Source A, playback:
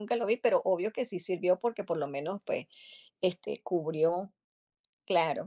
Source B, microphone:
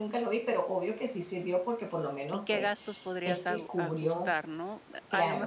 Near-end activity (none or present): present